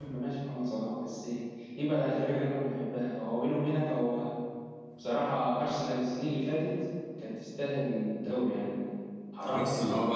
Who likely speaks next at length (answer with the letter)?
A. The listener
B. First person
A